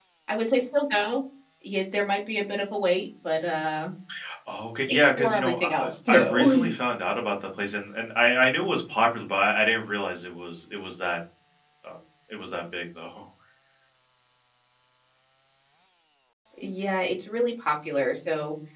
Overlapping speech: Yes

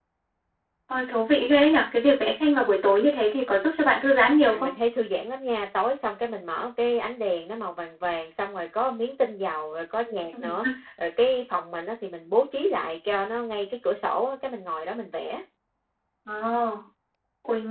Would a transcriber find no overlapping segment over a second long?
Yes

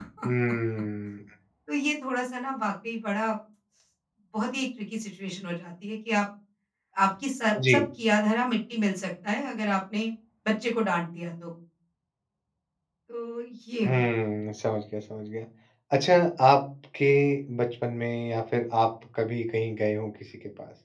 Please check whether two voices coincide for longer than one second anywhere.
No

